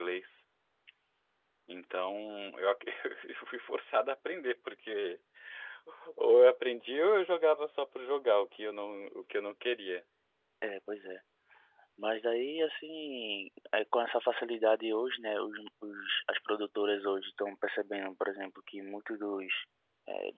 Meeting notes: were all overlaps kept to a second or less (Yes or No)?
Yes